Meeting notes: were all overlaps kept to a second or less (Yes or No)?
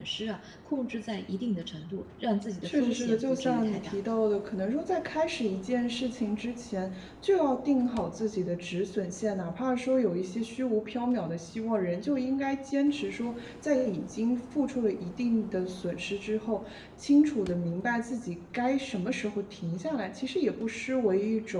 No